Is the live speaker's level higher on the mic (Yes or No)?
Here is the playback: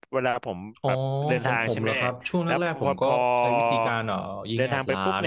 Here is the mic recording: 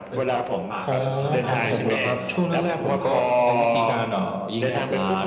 No